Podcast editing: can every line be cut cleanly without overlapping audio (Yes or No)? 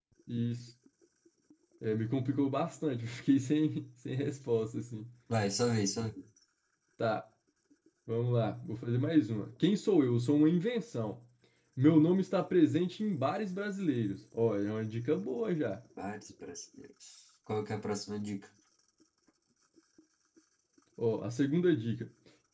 Yes